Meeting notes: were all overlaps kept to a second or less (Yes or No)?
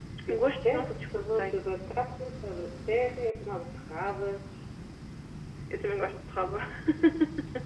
No